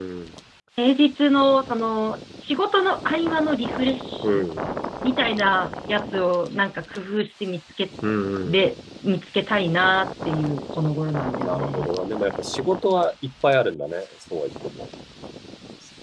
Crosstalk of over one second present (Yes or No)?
No